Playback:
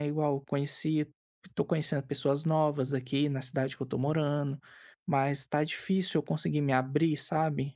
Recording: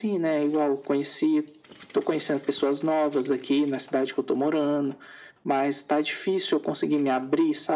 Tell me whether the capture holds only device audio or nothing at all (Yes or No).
Yes